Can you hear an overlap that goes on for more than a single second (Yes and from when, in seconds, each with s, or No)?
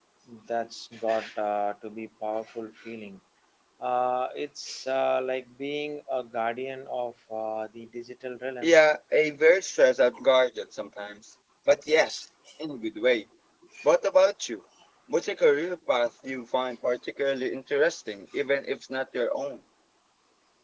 No